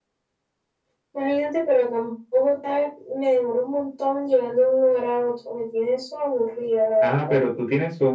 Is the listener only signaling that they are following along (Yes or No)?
No